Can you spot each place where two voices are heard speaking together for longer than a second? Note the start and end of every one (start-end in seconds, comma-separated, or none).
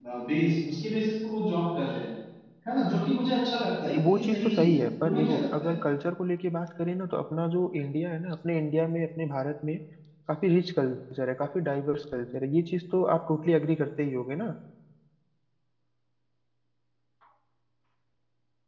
3.9-5.7